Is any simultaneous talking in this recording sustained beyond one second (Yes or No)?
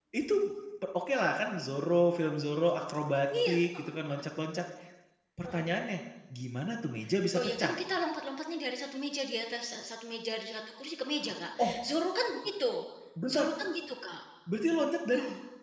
No